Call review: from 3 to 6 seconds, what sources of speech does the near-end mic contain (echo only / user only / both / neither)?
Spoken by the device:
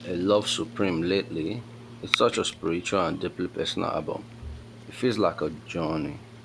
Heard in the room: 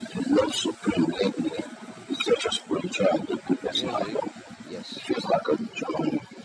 both